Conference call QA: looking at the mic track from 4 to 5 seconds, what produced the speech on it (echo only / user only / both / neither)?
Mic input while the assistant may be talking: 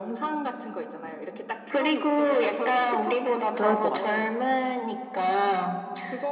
both